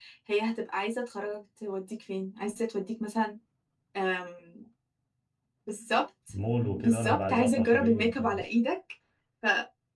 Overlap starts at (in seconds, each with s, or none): 6.8 s